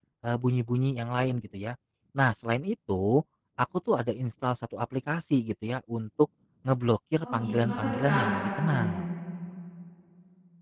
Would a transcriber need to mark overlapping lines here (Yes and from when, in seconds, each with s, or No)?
Yes, from 7.2 s